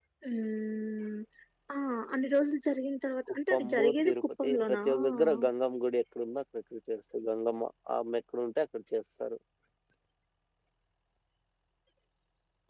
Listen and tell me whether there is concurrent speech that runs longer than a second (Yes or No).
Yes